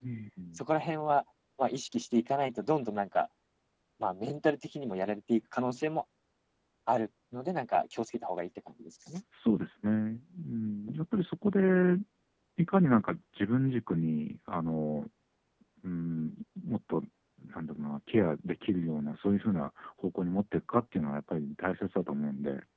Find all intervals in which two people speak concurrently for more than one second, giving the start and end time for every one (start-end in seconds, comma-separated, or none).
none